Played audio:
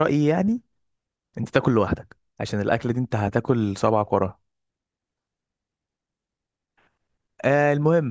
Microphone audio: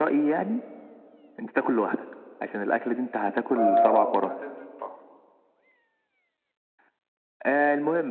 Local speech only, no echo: فا اه ما انت لازم تحطها

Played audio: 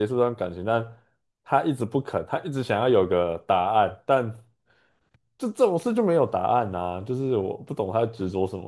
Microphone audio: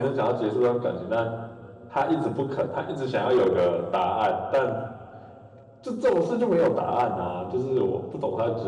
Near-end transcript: none

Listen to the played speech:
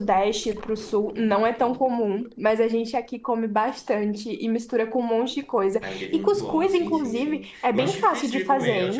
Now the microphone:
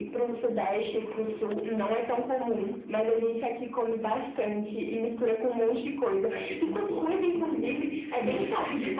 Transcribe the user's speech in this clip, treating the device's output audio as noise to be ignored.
none

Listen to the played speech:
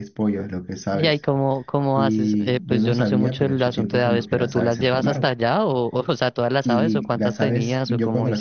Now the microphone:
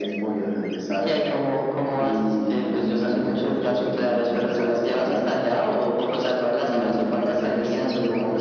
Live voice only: none

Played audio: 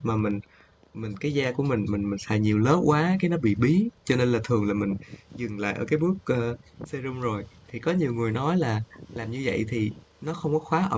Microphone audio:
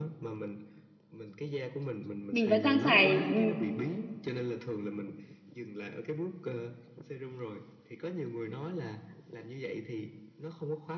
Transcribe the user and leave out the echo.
mình vẫn đang xài ừ,

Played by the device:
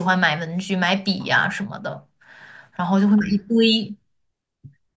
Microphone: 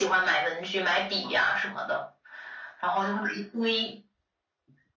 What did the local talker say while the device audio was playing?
none

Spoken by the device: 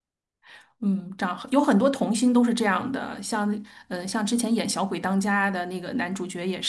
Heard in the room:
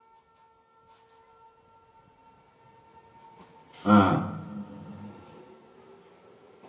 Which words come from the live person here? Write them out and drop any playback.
嗯

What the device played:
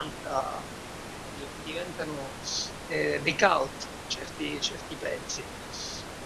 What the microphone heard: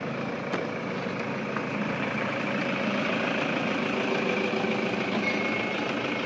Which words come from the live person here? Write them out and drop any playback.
none

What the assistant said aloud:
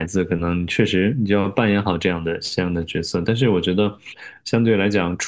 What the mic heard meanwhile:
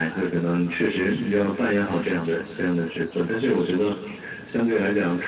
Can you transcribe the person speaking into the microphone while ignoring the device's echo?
none

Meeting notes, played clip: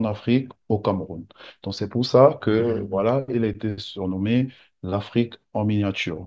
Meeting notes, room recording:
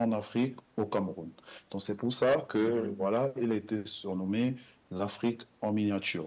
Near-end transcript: none

